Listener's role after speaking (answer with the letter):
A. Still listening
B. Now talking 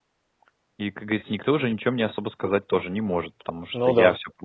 A